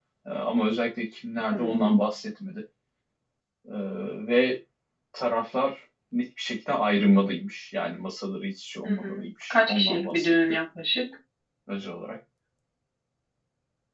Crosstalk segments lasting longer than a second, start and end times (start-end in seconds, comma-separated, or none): 8.8-10.3